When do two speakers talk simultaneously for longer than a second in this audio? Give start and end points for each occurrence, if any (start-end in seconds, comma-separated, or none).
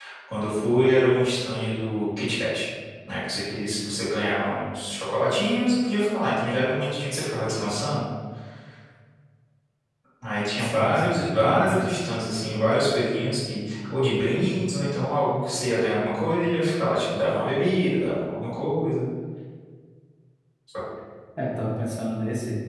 10.6-11.9